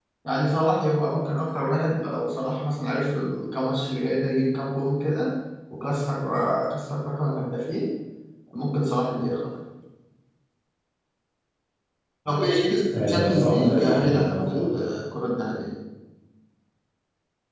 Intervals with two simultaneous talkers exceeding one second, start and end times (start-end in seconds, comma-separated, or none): 12.9-14.9